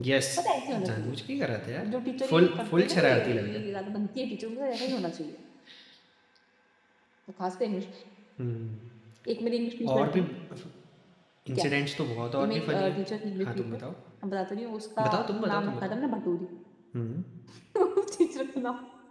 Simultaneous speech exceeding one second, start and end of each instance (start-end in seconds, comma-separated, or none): 2.3-3.6